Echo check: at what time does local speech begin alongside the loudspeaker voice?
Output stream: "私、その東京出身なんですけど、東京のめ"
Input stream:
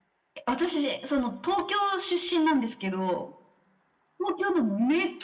none

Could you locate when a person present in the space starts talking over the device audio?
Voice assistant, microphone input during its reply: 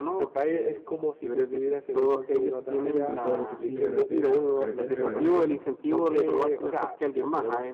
3.0 s

